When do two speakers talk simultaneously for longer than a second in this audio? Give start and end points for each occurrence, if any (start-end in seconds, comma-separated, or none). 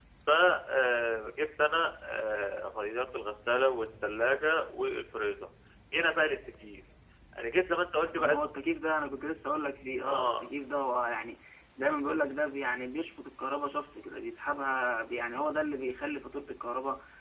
none